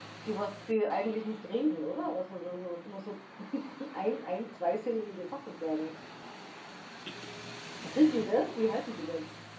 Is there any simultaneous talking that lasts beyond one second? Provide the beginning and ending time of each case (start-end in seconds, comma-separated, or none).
none